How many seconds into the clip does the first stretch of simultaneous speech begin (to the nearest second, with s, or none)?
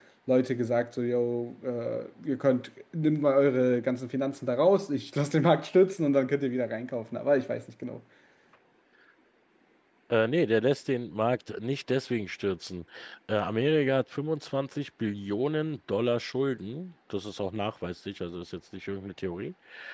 none